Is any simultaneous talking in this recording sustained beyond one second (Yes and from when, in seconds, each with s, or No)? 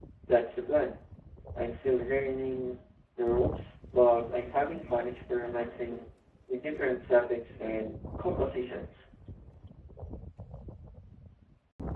No